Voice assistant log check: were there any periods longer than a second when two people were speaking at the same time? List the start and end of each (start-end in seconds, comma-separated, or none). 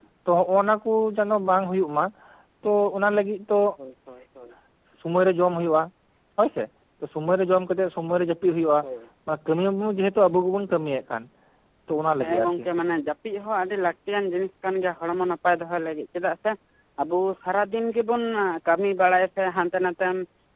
none